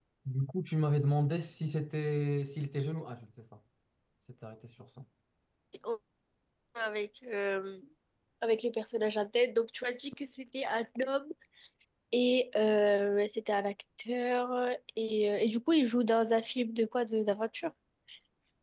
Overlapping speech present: No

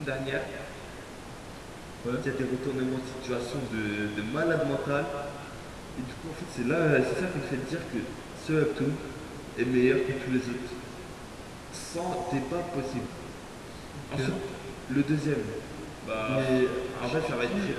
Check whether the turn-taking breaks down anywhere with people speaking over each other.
Yes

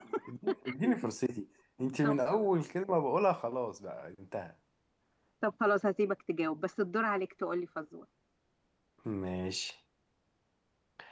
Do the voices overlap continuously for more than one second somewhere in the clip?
No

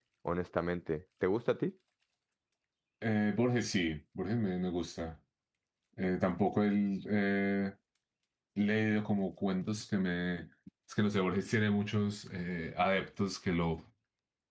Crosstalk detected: No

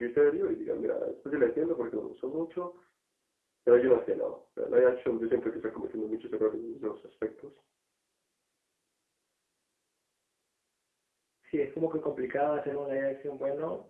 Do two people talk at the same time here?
No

